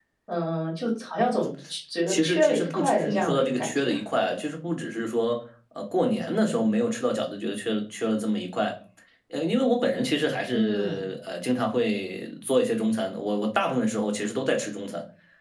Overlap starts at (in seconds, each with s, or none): 2.1 s